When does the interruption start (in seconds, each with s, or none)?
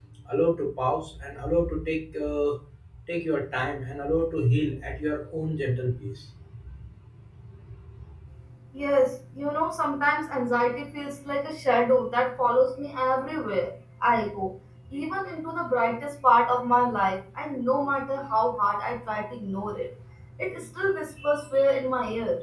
none